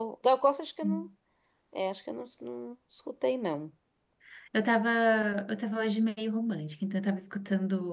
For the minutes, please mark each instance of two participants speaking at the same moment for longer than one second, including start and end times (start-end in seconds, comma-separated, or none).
none